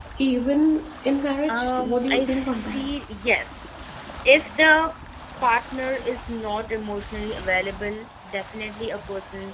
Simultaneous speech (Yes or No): Yes